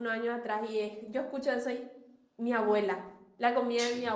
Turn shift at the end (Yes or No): No